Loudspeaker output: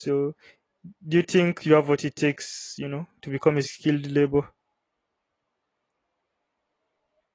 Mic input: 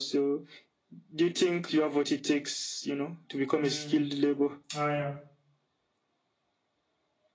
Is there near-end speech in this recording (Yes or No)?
Yes